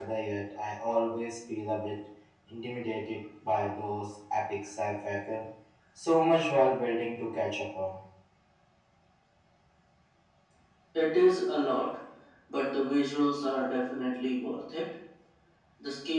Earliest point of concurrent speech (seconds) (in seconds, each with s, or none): none